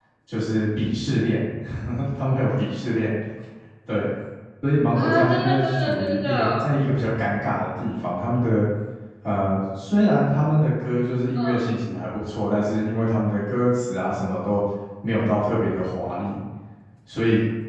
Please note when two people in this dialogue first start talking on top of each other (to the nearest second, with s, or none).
5 s